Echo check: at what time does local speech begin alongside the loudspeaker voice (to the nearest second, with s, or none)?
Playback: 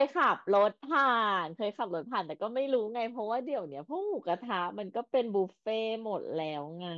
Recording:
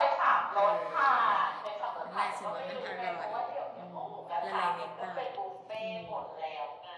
1 s